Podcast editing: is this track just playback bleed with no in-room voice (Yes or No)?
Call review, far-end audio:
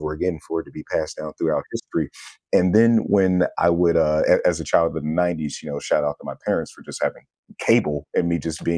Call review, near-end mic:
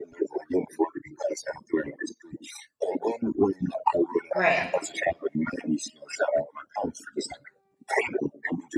No